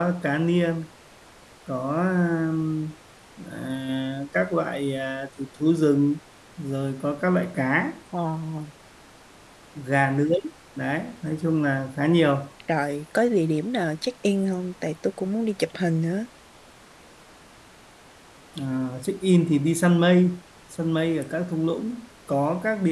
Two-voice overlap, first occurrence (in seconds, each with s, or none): none